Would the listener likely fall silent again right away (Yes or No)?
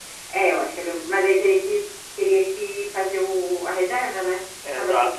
No